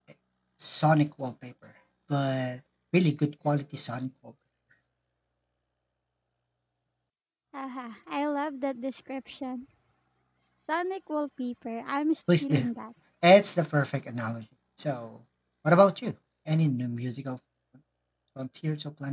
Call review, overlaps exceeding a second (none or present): none